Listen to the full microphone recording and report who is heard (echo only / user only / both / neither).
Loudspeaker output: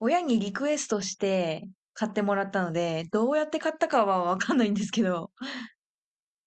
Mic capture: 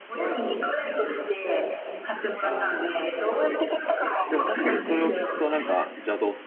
both